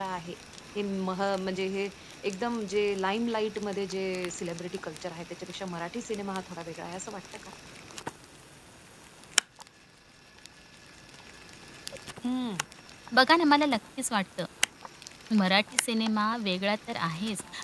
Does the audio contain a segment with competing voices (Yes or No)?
No